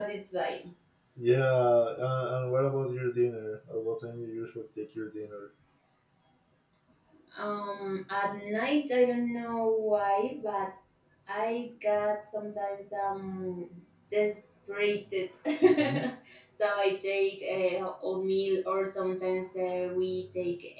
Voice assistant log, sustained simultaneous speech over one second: none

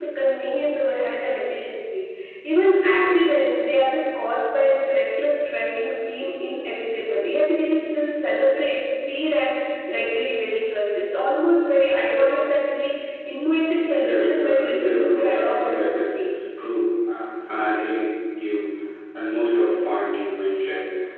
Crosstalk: present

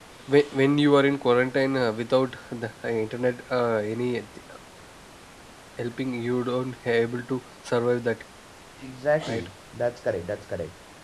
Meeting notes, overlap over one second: none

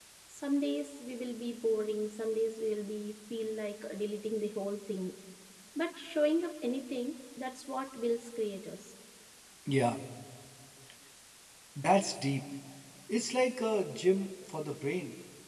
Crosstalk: none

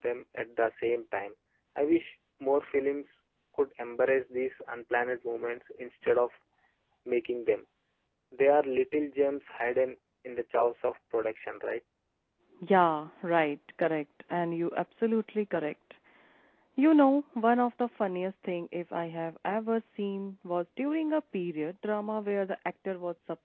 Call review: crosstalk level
none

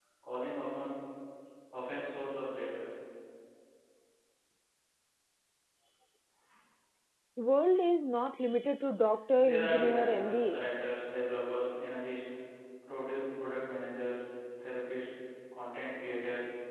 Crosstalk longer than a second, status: present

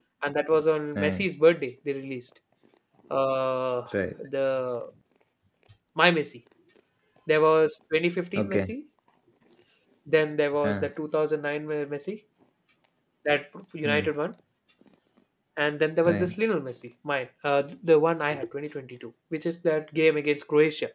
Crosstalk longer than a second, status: none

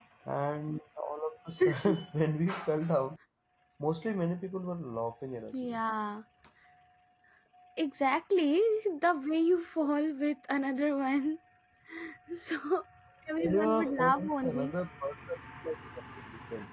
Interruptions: present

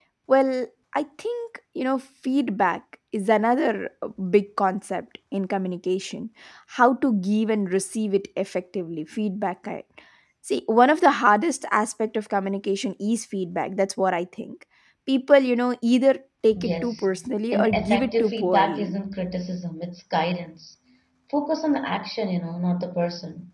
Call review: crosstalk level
present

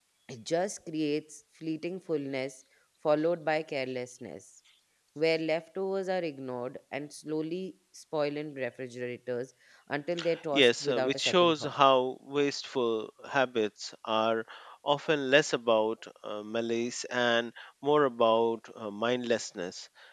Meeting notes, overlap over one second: present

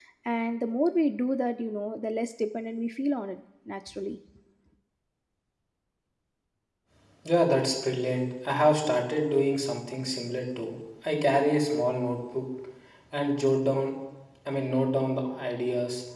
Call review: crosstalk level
none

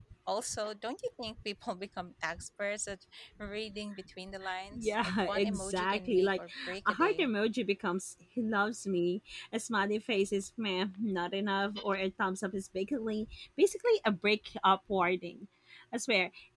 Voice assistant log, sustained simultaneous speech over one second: present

